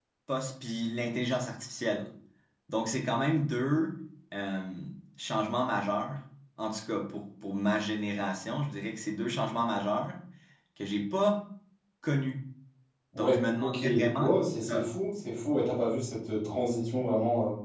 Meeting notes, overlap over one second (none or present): present